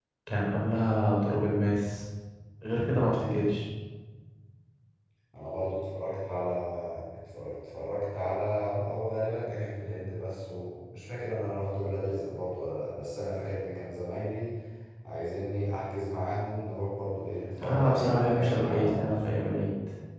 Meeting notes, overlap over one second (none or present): present